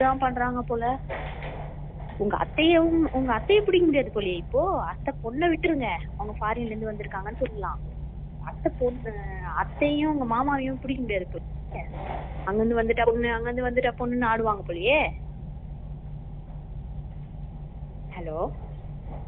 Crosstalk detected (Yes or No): No